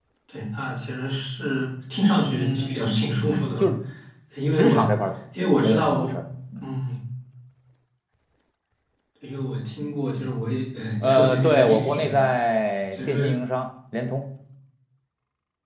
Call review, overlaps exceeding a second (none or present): present